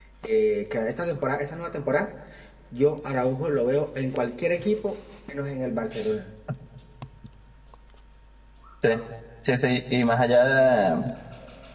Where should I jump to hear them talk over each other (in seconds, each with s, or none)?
none